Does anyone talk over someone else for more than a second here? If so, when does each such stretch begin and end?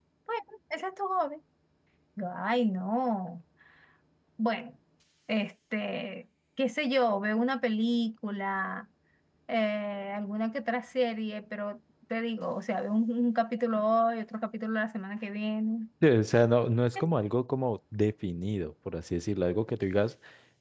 none

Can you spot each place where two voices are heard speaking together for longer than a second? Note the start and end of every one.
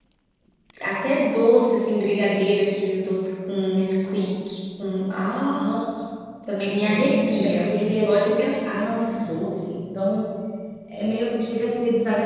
6.9-8.9

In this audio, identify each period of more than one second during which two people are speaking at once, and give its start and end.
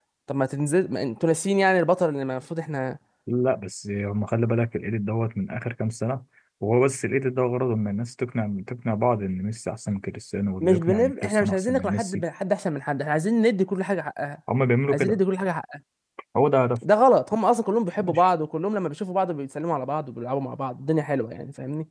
10.6-12.2

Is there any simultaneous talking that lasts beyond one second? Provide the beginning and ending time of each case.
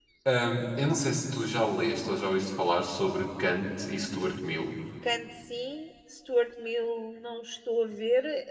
none

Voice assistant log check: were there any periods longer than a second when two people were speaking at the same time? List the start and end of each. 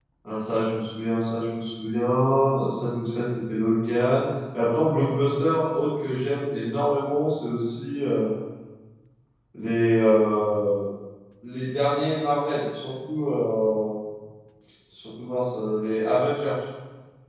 none

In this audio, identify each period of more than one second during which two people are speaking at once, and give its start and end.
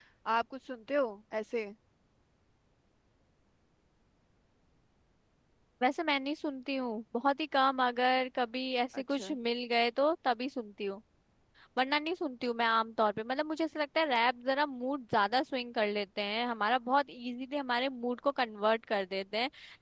none

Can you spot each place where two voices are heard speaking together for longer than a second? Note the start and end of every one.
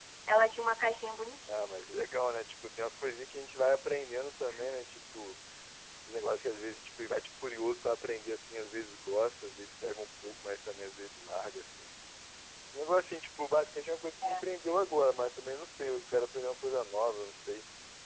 none

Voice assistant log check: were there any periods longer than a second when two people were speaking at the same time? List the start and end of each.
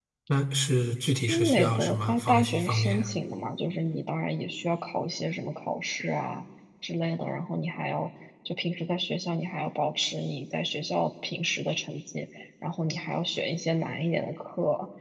1.3-3.1

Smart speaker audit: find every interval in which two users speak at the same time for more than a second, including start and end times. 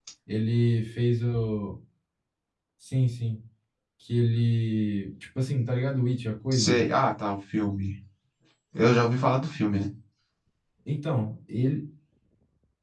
none

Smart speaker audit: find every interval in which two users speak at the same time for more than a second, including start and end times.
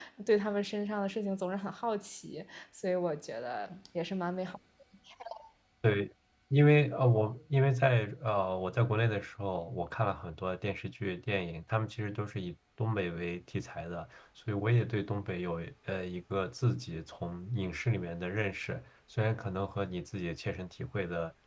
none

